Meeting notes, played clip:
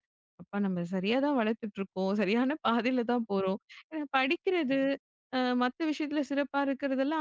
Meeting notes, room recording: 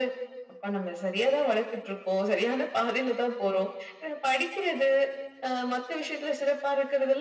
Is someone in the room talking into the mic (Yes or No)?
No